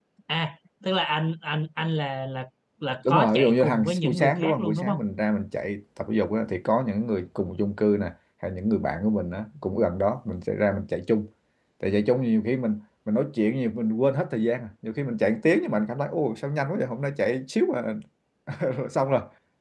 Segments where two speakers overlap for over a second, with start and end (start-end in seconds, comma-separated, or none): 3.1-5.0